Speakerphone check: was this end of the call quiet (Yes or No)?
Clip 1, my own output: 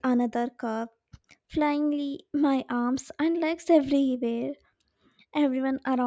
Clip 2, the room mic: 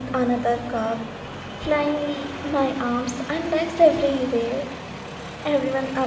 Yes